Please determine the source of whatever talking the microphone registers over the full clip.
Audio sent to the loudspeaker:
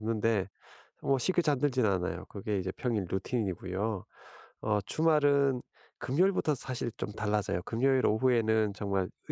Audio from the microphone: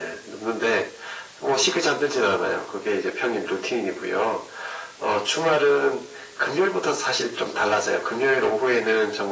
echo only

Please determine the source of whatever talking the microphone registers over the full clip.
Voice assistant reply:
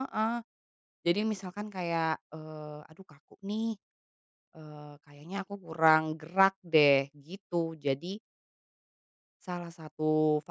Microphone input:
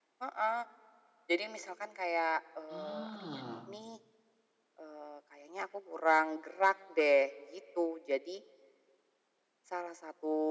both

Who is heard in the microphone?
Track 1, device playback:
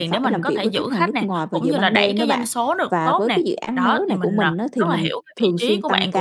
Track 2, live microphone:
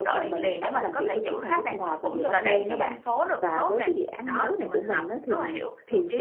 echo only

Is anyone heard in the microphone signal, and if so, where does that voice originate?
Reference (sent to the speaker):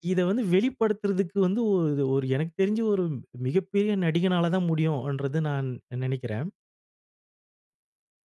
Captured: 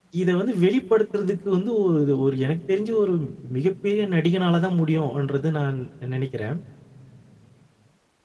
echo only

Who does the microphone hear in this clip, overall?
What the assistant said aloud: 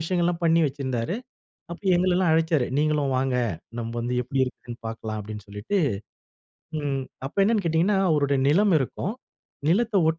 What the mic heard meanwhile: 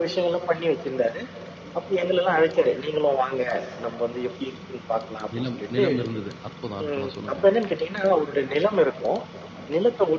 both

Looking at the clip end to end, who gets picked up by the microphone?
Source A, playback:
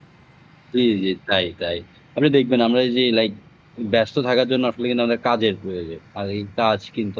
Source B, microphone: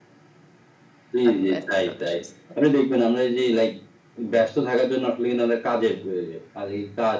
both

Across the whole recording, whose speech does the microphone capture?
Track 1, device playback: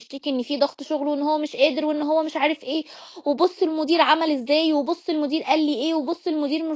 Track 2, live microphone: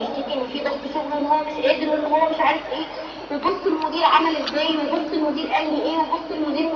echo only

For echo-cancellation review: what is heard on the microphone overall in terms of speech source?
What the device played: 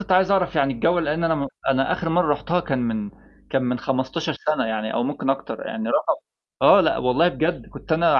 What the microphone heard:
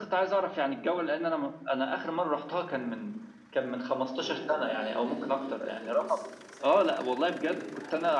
both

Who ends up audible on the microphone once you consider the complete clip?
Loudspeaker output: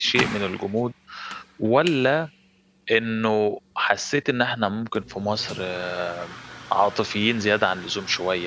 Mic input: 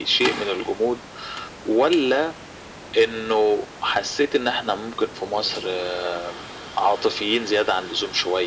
echo only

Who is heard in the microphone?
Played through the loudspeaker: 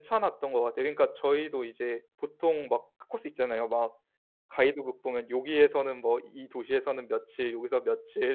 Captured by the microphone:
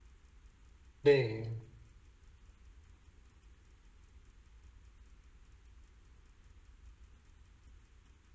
user only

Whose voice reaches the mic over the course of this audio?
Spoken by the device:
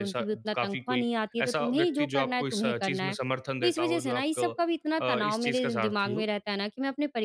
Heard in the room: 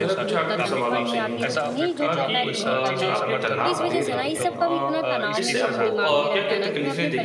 both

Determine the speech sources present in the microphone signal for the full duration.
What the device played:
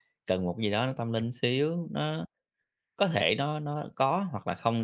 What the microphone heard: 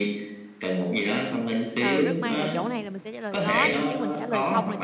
both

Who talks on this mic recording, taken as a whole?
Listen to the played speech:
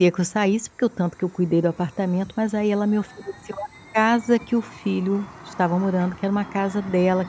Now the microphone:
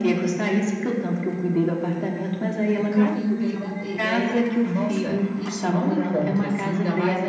both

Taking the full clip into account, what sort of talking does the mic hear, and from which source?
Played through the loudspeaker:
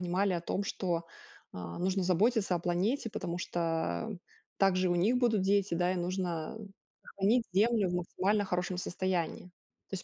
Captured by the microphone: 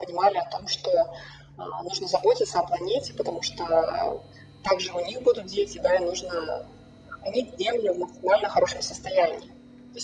echo only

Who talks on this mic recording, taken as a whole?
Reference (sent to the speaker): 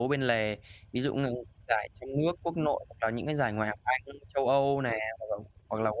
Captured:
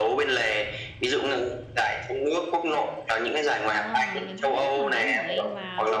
both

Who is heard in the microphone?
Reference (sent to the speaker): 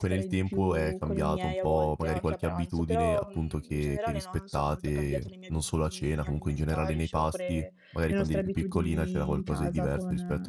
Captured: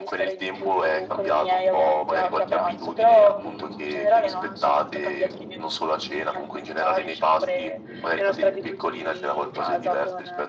echo only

